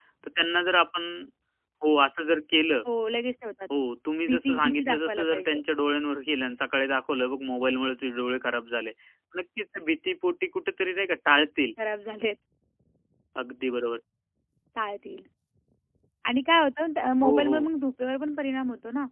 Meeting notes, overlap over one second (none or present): present